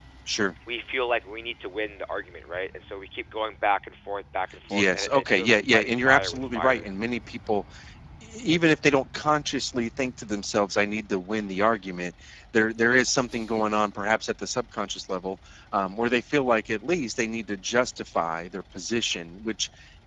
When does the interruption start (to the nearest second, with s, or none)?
5 s